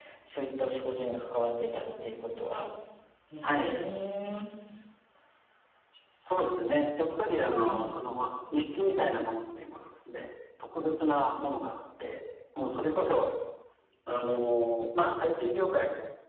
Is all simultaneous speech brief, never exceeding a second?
Yes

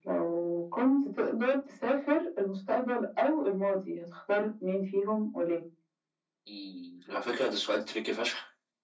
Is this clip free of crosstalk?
Yes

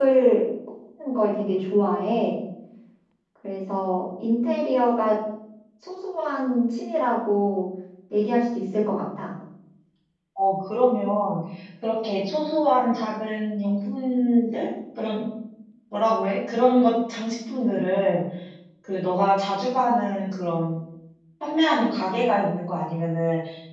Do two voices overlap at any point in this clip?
No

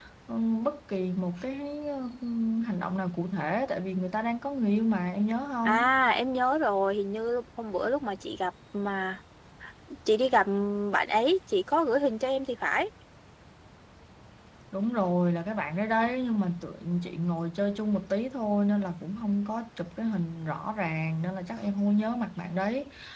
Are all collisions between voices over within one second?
Yes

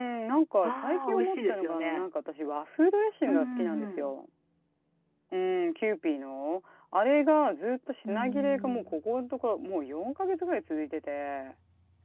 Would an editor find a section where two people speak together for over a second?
Yes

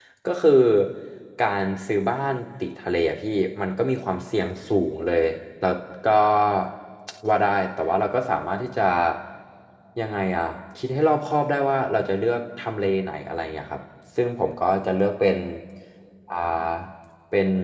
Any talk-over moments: No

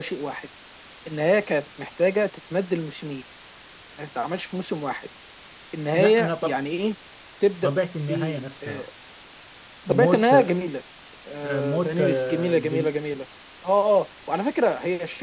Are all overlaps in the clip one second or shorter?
No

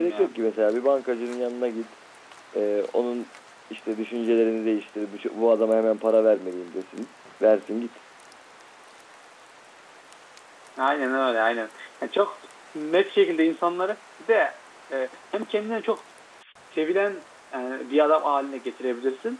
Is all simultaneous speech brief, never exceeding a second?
Yes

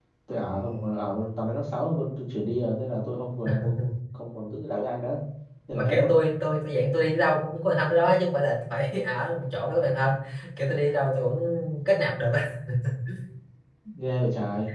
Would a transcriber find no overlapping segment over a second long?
Yes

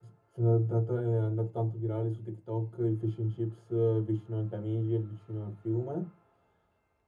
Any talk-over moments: No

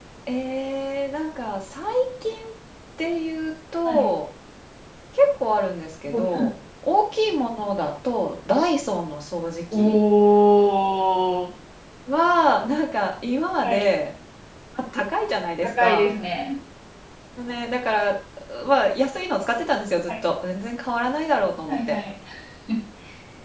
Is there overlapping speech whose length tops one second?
No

